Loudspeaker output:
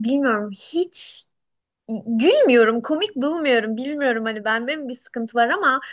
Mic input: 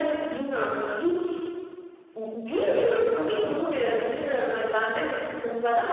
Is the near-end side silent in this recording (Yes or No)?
Yes